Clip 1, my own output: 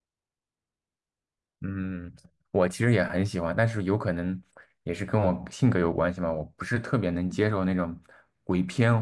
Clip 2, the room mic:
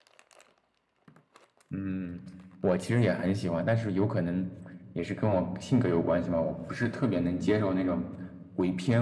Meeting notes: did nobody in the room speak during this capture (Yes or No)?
Yes